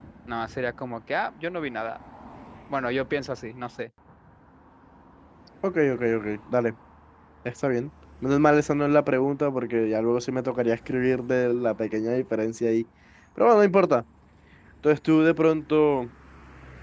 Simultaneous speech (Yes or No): No